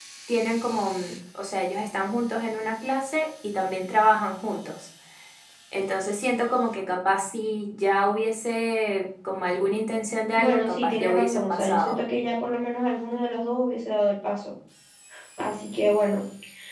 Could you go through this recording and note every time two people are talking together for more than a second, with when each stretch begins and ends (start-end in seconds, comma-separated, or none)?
10.4-12.0